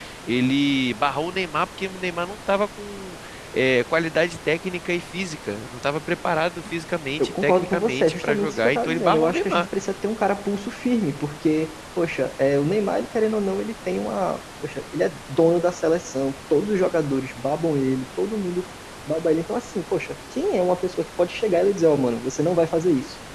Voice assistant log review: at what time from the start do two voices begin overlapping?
7 s

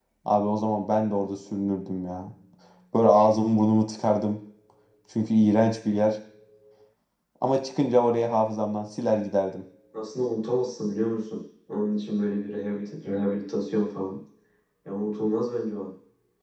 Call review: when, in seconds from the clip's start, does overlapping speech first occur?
none

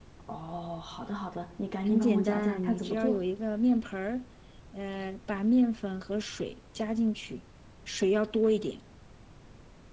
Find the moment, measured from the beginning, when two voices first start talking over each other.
2 s

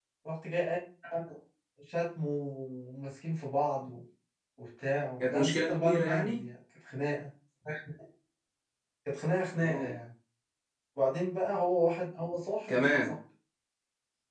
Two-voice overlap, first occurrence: 5 s

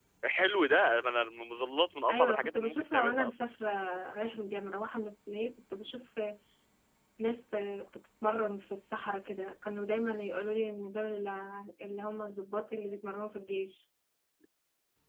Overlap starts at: 2 s

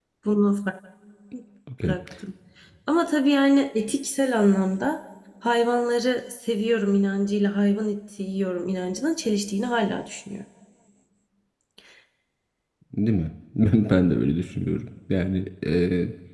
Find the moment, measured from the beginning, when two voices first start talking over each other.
none

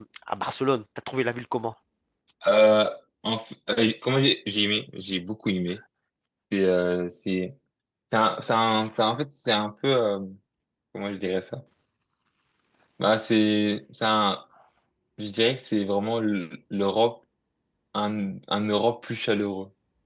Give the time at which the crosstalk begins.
none

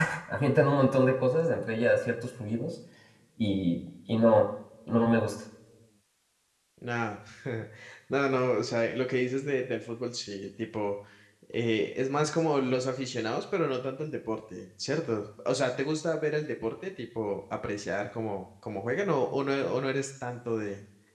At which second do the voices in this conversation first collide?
none

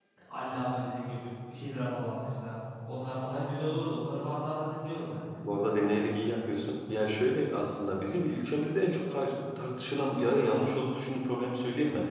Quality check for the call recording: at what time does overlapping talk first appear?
none

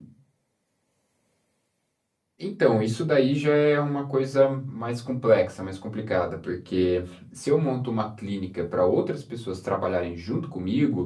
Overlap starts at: none

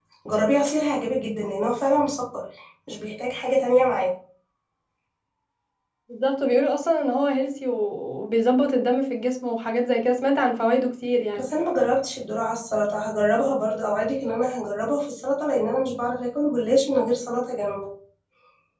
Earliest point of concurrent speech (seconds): none

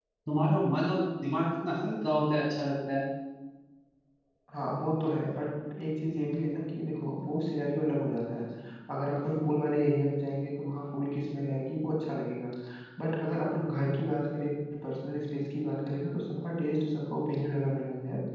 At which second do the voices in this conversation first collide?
none

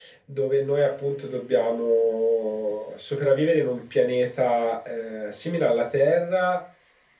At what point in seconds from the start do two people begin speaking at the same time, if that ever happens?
none

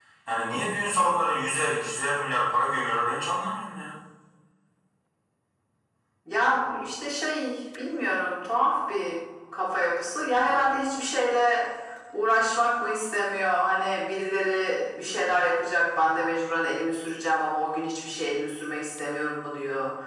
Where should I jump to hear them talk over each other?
none

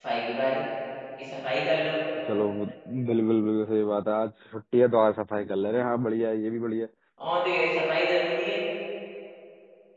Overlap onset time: none

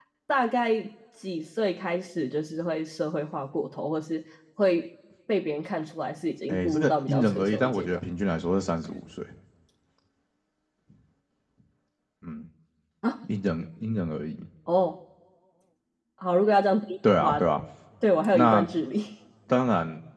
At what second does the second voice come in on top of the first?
6 s

